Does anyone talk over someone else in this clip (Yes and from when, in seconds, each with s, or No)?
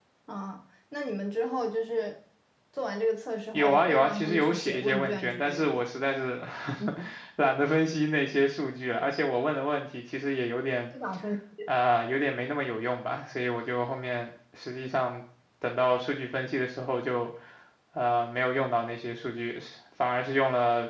Yes, from 3.5 s